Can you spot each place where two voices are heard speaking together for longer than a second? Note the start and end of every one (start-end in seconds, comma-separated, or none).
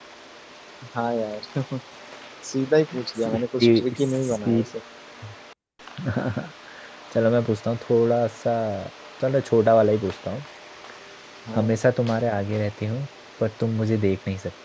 3.2-4.6